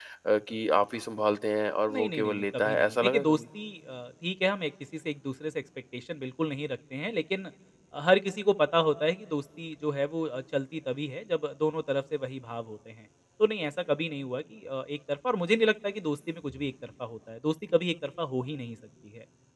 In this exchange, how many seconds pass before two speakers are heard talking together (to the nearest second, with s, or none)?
2 s